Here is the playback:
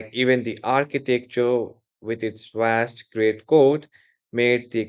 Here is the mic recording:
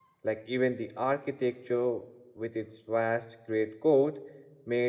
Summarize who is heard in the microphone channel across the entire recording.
echo only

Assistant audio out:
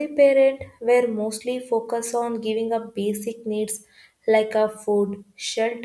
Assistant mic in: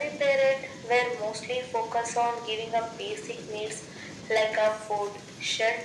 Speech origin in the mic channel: echo only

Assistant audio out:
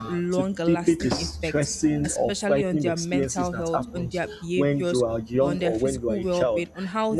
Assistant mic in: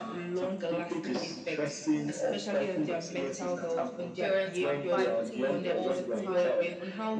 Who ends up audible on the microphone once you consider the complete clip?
both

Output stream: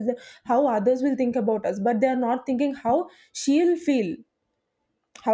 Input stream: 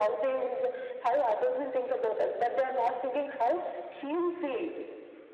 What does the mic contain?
echo only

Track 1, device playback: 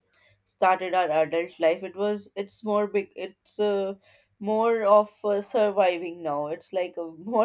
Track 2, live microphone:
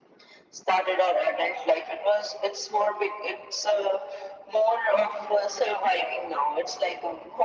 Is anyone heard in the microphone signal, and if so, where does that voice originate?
echo only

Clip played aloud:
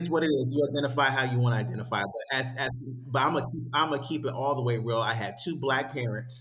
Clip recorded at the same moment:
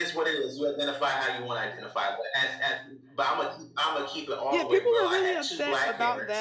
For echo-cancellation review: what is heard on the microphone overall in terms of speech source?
both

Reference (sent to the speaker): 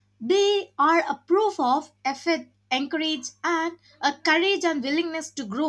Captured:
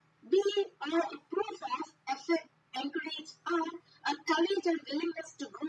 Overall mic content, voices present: echo only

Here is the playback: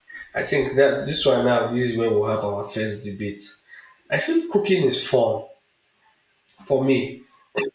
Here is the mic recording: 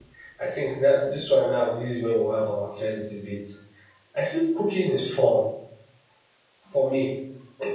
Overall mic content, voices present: echo only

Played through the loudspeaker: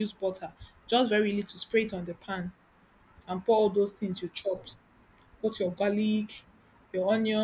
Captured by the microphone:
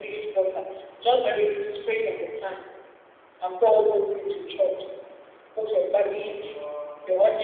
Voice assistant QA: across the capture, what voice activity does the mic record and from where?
both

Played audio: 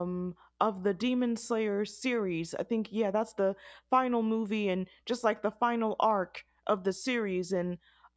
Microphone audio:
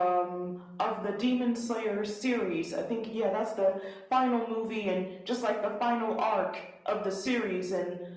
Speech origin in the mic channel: echo only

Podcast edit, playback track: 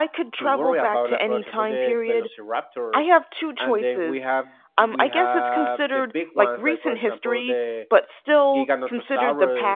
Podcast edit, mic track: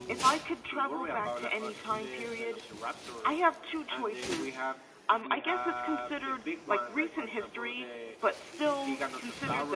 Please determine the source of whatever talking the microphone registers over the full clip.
echo only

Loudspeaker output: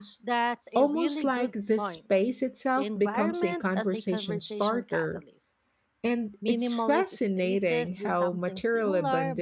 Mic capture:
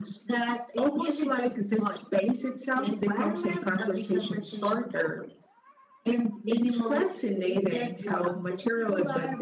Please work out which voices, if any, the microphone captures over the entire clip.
echo only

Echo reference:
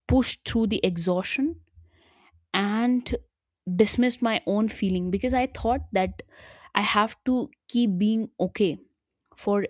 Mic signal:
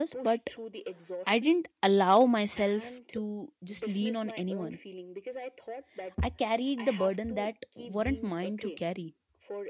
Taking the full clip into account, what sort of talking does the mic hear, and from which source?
both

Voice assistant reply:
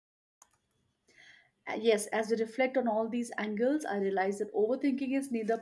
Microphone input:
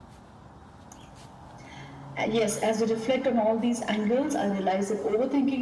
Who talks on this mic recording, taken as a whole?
echo only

